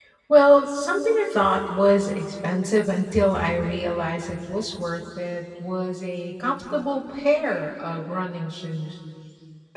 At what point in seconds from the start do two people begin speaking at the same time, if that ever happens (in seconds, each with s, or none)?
none